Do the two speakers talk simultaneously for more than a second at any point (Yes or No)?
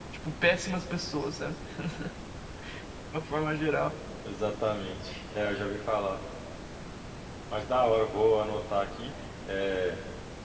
No